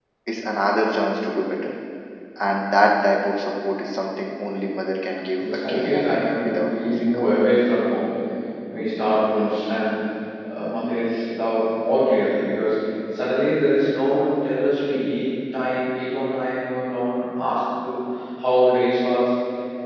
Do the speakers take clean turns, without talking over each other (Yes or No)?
No